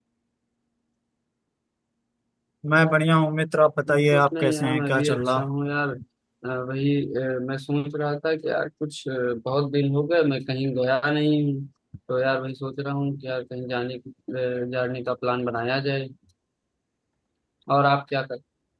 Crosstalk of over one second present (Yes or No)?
Yes